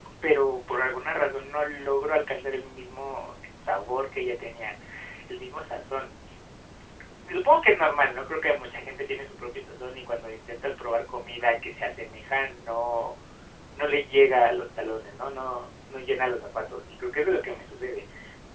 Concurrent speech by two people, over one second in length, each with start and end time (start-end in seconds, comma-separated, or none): none